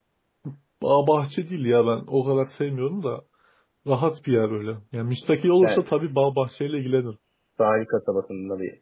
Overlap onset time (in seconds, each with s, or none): 5.6 s